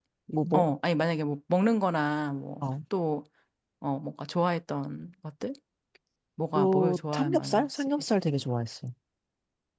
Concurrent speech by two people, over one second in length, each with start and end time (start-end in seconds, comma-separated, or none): 6.6-7.9